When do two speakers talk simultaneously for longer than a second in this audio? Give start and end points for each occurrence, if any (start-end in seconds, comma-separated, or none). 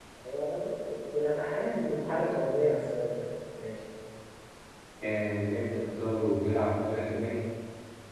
none